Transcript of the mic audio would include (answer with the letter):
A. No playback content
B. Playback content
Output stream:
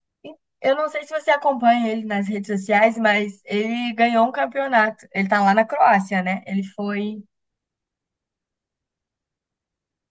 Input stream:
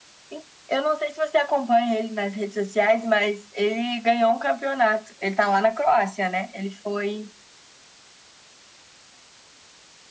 B